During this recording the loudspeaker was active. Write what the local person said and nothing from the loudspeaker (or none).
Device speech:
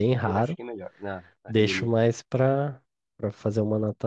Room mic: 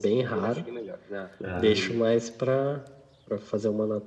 Ah.